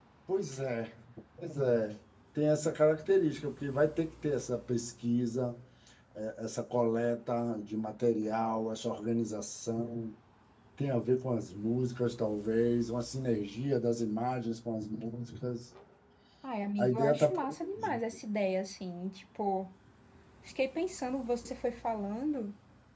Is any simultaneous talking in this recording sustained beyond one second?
Yes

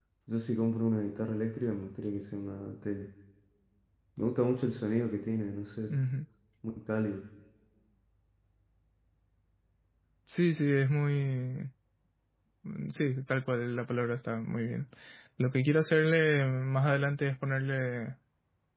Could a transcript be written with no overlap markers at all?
Yes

